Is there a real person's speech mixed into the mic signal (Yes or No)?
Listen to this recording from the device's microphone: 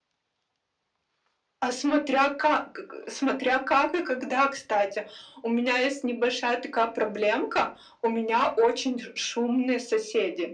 No